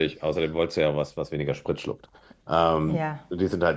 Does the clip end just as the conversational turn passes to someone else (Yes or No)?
No